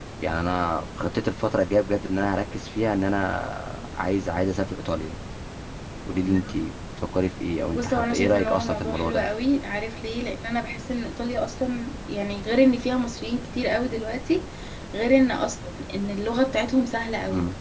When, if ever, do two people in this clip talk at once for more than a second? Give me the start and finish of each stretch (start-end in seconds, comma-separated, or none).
7.7-9.3